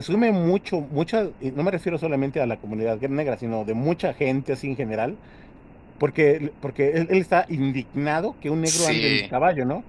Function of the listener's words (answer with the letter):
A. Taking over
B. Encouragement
B